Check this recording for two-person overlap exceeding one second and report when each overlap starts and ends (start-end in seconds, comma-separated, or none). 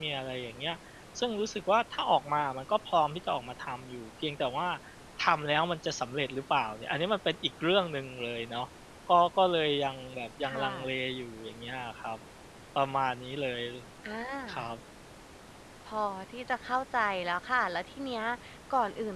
none